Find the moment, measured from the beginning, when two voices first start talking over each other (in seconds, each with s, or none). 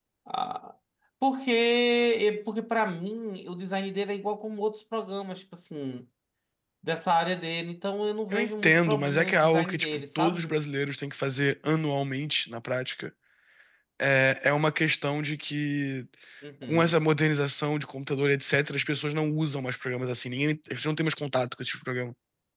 8.3 s